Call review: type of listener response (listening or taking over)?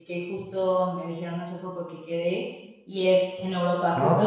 listening